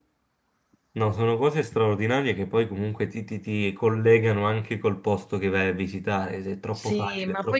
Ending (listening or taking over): taking over